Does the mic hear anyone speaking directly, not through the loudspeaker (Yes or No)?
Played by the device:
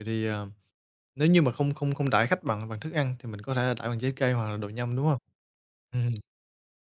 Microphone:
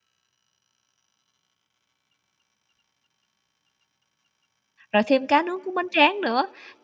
Yes